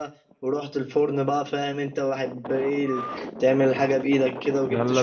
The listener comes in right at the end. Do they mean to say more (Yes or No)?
Yes